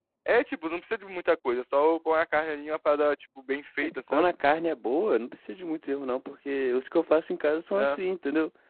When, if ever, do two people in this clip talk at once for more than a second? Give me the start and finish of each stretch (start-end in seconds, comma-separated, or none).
none